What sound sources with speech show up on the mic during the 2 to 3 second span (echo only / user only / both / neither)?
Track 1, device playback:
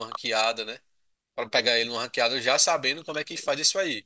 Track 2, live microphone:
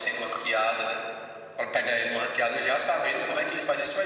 echo only